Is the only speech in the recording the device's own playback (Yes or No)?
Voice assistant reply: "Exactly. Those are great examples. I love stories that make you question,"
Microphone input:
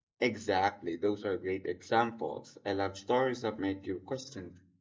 Yes